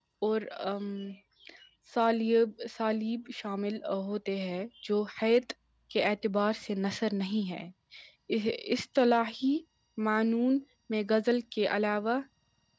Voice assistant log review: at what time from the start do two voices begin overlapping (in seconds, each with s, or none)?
none